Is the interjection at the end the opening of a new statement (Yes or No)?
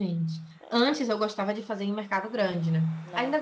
No